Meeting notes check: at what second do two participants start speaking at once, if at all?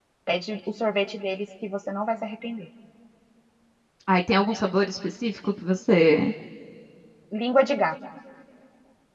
none

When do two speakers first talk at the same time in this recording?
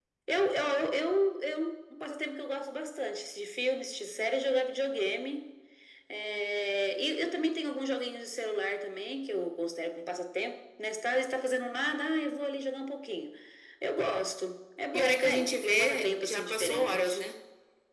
15 s

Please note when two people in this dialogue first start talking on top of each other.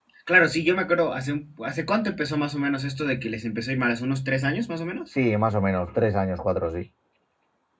none

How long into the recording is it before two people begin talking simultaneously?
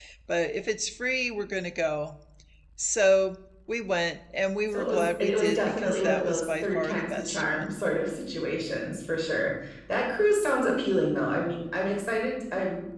5 s

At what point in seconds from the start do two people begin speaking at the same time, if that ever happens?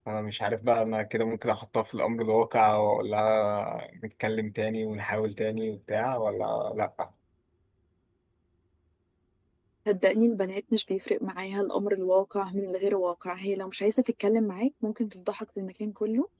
none

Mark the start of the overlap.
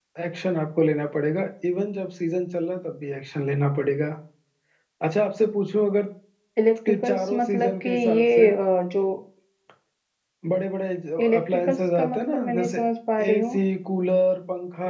7 s

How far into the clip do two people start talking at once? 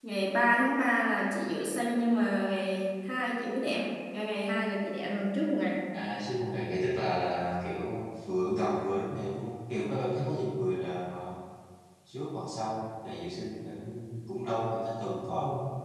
none

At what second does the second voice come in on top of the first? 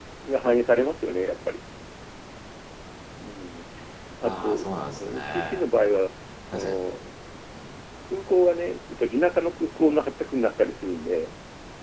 4 s

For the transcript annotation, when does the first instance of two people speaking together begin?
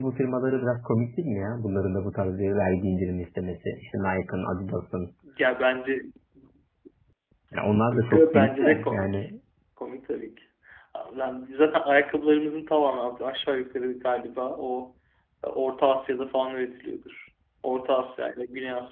8 s

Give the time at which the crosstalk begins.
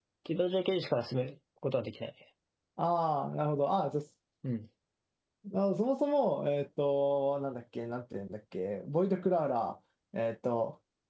none

